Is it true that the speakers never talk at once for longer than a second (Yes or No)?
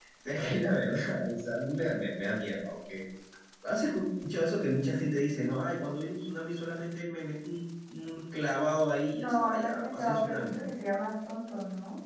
No